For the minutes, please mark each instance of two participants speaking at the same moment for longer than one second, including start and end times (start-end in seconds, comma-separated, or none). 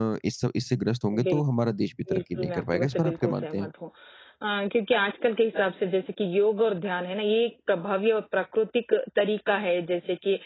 2.1-3.7